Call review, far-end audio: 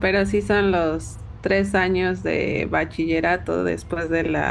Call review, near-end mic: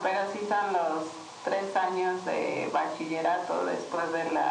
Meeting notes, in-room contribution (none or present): none